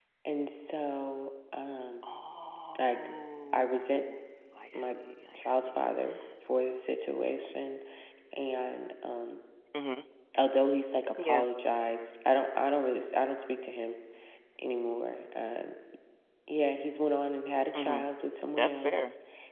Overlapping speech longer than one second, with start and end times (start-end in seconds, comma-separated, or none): none